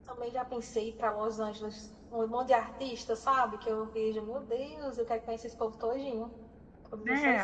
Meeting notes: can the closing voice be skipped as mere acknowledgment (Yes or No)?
No